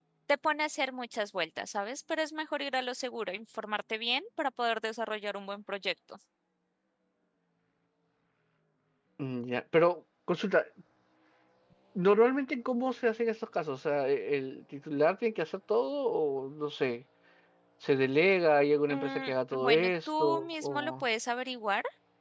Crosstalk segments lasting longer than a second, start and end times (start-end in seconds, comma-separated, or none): 18.9-21.0